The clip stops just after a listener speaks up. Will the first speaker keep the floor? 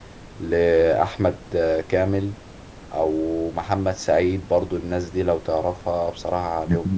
No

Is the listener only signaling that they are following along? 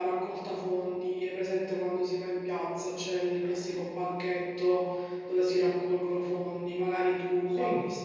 Yes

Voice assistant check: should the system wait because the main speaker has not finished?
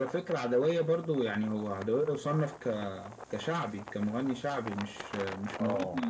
Yes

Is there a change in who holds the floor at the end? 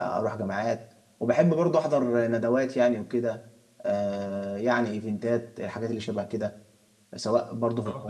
Yes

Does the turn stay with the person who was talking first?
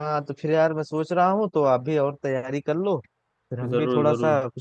Yes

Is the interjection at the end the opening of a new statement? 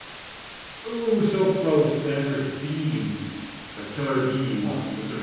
Yes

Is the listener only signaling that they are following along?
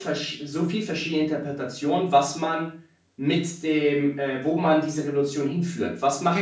No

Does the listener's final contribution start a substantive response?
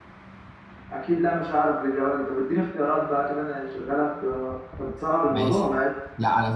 Yes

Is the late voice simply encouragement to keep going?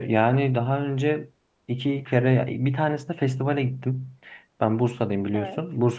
Yes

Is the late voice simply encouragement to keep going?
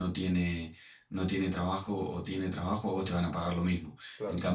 Yes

